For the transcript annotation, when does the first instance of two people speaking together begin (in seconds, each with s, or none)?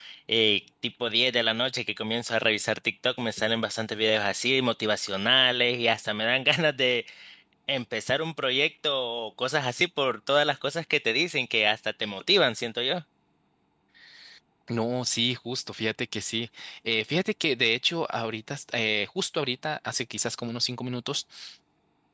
none